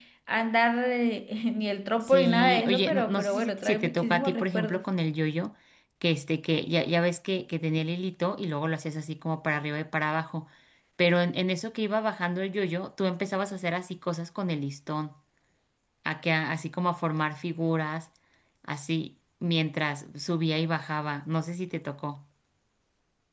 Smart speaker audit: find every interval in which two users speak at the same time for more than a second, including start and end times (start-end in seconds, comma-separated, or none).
2.1-4.8